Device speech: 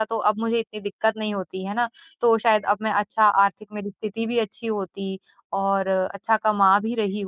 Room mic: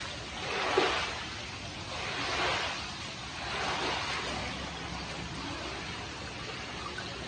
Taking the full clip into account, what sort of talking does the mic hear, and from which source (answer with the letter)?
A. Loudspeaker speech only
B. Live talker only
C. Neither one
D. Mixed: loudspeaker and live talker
C